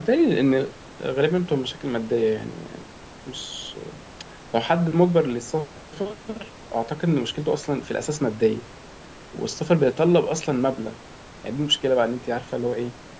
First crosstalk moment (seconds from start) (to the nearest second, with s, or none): none